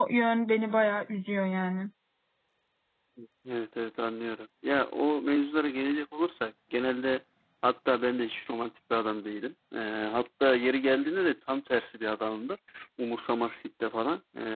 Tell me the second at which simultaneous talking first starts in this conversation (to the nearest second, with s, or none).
none